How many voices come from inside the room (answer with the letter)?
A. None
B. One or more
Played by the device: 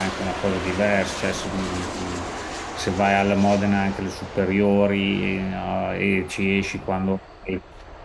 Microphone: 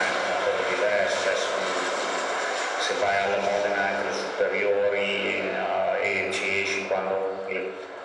A